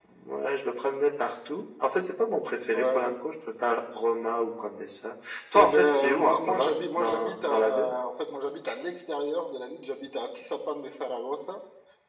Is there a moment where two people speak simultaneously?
Yes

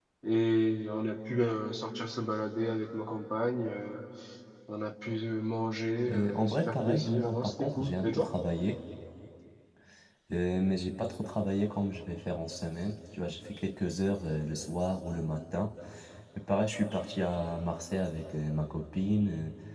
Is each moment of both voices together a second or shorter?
No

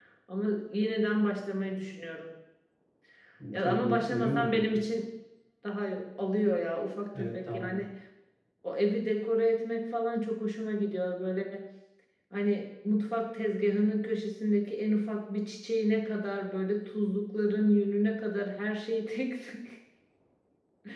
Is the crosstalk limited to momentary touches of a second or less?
No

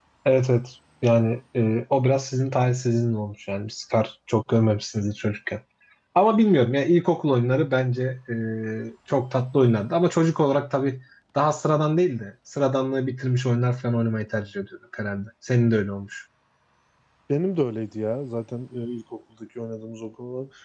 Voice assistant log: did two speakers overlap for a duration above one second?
No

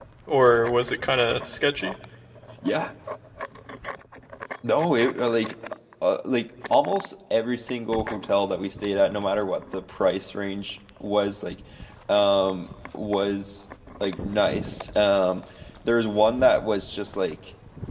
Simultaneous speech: No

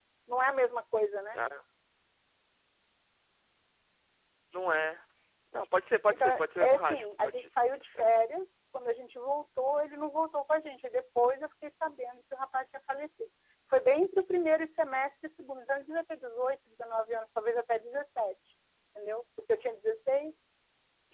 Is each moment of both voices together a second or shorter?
No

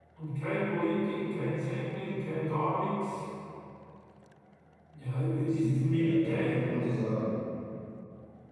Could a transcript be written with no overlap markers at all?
No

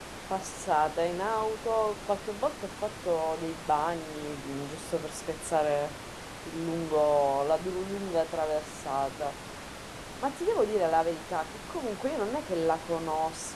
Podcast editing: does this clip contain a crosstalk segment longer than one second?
No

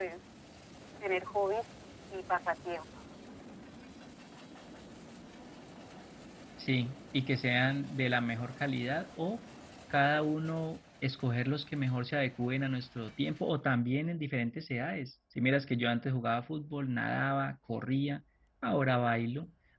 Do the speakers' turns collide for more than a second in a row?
No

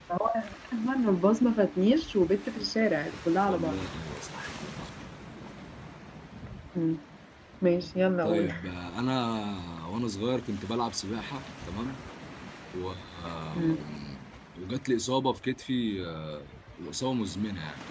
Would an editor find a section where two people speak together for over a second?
No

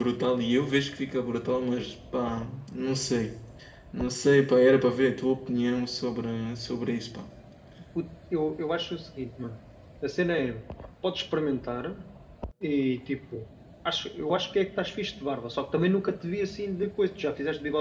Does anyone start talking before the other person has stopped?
No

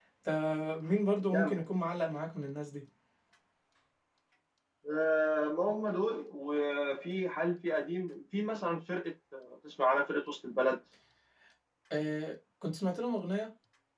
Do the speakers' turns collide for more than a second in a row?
No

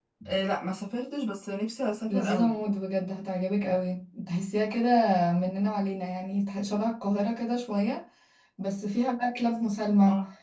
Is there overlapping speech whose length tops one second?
No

